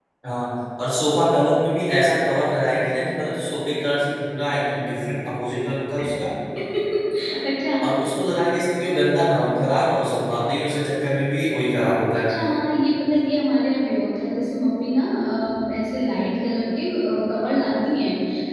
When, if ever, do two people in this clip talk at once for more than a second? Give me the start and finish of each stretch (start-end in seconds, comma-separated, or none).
none